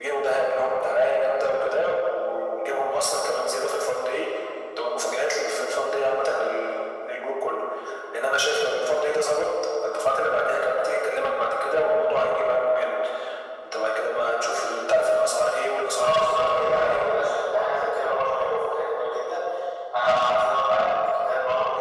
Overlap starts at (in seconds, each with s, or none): 15.9 s